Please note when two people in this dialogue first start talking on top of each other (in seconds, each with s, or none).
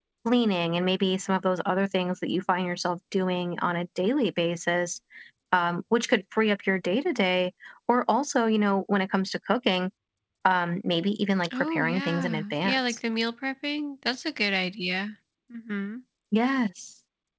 11.4 s